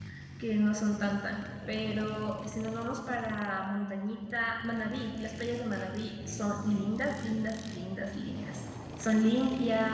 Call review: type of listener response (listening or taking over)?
taking over